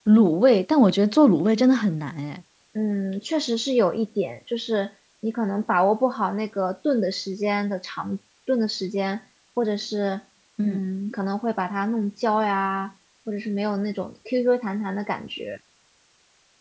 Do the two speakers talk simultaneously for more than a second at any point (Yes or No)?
No